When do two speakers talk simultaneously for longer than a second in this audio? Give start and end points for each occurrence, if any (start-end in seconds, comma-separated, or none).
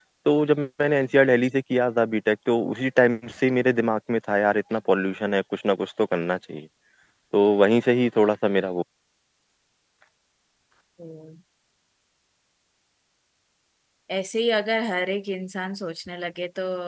none